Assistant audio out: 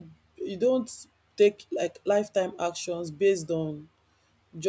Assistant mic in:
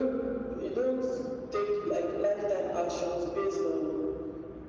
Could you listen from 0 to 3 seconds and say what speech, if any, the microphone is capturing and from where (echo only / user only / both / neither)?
echo only